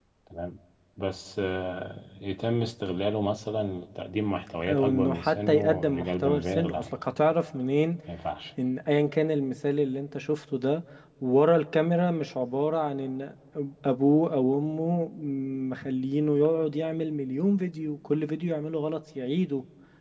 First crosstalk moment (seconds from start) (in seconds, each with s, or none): 4.6 s